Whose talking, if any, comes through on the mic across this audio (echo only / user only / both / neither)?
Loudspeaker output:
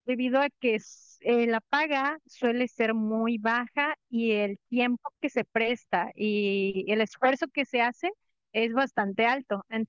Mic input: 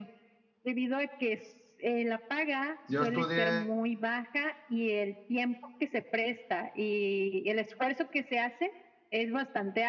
both